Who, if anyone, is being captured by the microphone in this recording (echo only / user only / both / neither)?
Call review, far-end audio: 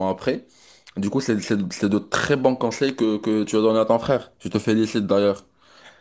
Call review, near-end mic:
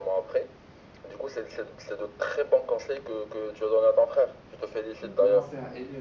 both